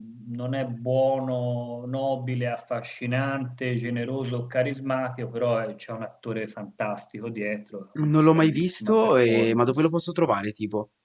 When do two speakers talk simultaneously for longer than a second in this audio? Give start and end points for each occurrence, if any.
8.0-9.8

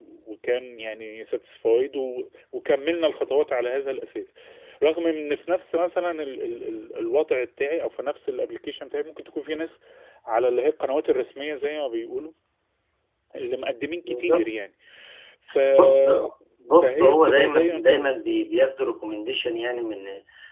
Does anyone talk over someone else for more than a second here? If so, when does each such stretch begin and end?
16.8-18.4

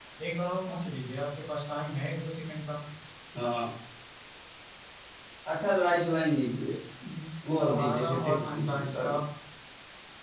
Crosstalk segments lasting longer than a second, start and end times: 7.5-9.2

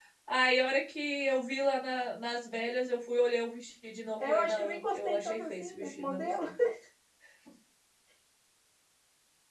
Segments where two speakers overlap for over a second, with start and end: 4.2-6.3

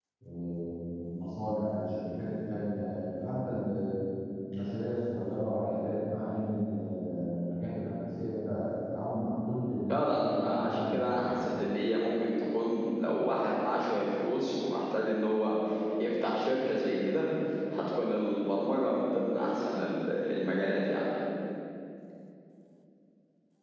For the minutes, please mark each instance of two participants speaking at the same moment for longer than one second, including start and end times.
9.9-11.3

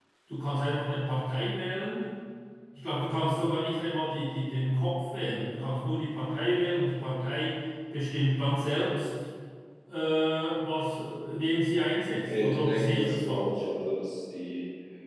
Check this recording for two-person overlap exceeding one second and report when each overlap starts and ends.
12.2-13.5

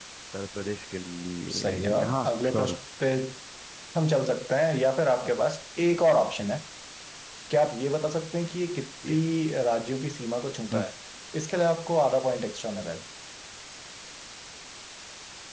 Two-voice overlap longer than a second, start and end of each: 1.5-2.8

